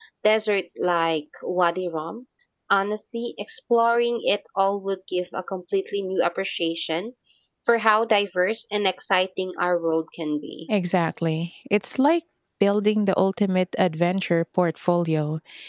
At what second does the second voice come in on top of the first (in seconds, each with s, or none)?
none